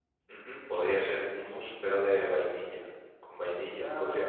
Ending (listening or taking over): listening